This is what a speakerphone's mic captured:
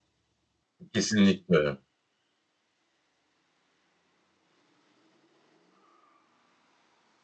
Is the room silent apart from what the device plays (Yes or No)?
No